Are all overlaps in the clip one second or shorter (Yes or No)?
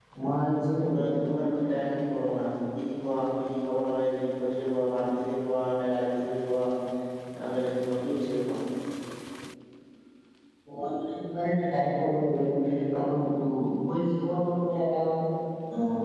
Yes